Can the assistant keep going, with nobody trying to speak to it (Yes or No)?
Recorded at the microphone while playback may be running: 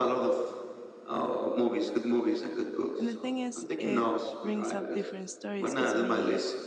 No